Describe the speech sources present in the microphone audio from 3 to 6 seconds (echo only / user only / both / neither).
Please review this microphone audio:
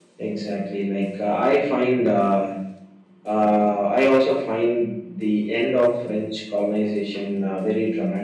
echo only